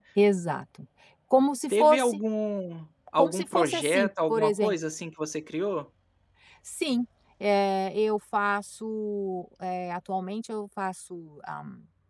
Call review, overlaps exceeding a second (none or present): present